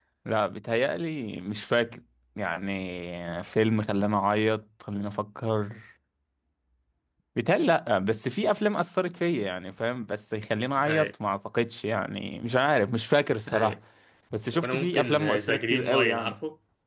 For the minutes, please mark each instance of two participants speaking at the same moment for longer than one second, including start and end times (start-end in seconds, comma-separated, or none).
14.6-16.4